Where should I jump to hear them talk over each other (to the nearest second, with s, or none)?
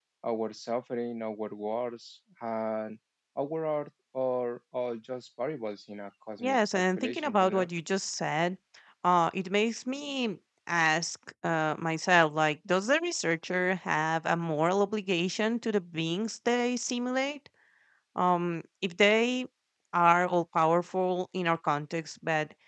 6 s